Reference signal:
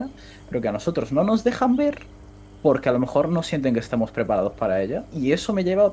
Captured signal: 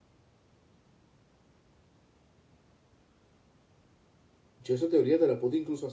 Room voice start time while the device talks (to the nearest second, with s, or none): 5 s